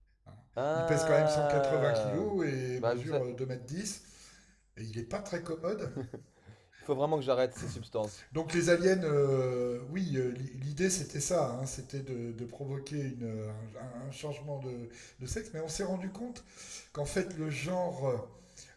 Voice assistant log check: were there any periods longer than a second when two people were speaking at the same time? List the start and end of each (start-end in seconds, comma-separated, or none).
0.7-2.3